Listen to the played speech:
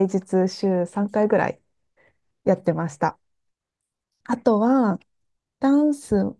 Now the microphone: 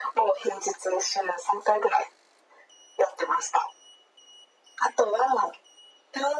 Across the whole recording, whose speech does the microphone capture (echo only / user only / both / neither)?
echo only